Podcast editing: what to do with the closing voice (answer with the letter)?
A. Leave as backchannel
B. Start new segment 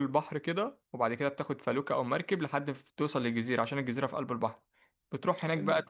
A